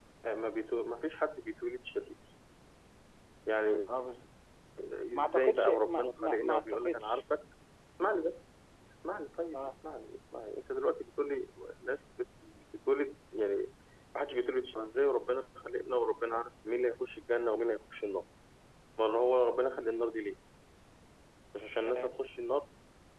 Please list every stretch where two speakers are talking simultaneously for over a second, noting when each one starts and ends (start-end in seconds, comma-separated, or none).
5.2-7.2